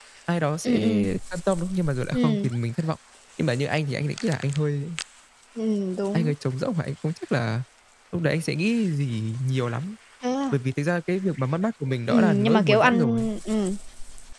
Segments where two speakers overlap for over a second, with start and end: 12.1-13.3

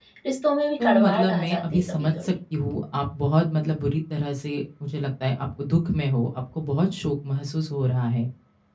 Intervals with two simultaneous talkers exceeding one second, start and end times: 0.8-2.4

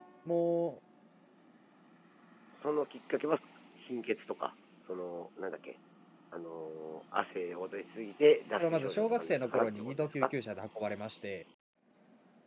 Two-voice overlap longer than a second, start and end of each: 8.6-10.3

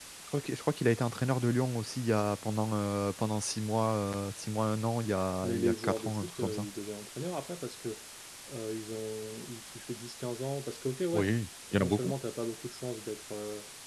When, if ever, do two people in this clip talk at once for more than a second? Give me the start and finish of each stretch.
5.4-6.7

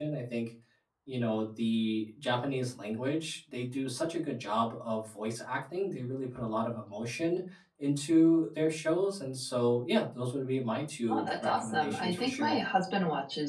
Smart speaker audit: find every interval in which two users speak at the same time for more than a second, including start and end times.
11.1-12.6

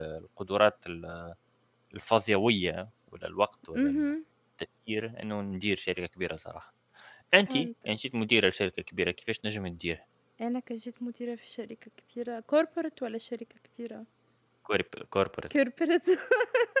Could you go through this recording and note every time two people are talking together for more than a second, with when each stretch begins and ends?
none

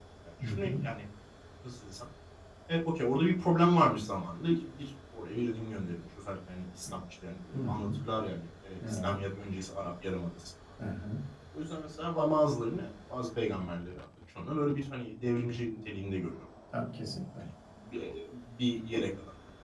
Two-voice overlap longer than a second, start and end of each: none

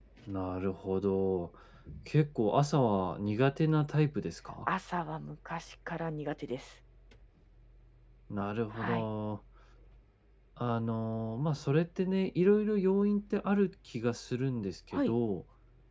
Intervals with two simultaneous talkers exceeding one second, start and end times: none

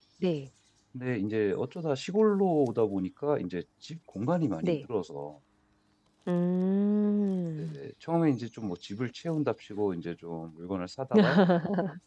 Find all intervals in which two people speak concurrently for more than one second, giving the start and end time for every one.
none

